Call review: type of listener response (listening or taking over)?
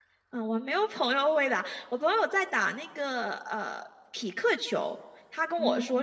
listening